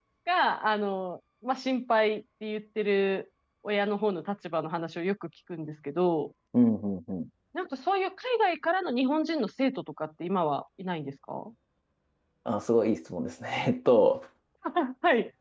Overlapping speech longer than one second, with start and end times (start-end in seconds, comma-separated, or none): none